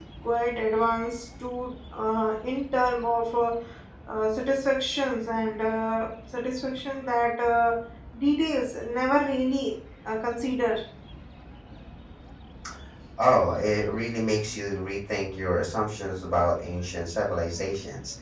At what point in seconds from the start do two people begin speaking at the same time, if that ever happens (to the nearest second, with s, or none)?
none